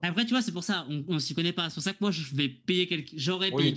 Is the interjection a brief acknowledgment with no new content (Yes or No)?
No